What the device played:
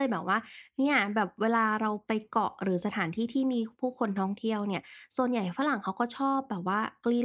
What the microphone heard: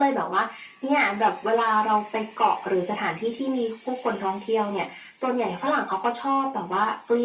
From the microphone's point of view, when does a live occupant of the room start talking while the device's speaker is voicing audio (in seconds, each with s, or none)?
none